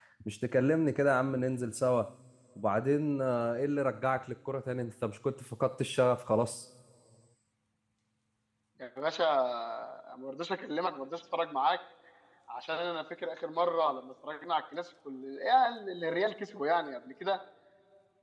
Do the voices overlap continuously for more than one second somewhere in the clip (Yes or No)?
No